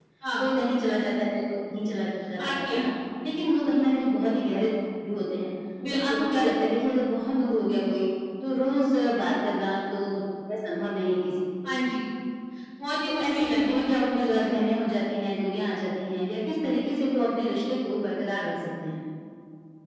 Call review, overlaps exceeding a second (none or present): present